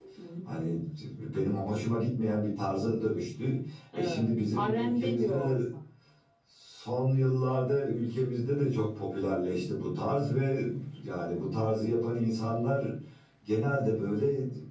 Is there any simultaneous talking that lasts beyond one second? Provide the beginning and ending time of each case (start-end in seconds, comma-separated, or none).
4.0-5.6